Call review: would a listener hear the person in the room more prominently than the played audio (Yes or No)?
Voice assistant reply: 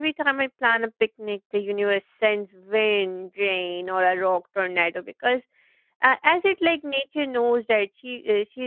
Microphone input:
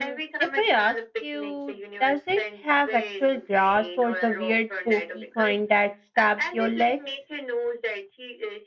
Yes